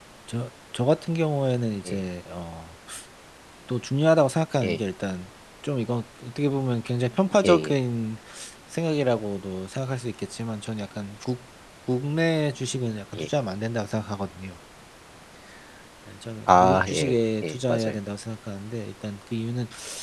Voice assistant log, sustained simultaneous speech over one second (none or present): present